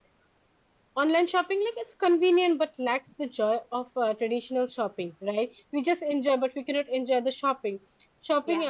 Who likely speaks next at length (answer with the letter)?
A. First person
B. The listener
A